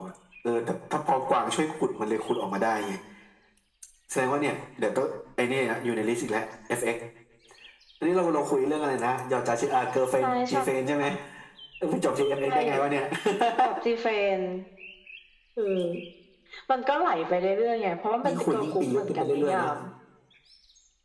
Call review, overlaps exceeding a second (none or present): present